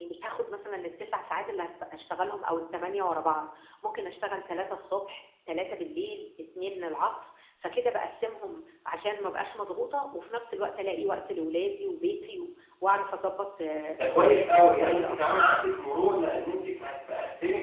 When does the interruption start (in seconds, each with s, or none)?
14.0 s